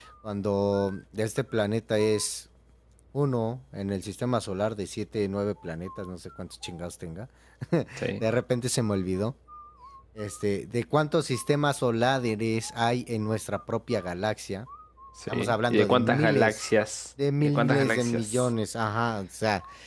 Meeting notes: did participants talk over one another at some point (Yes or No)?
Yes